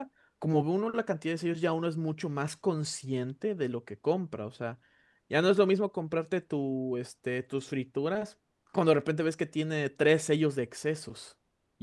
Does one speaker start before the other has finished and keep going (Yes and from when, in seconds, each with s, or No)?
No